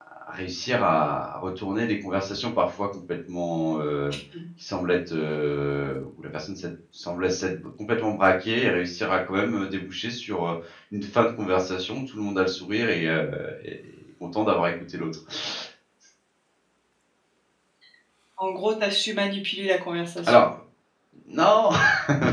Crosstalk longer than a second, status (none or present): none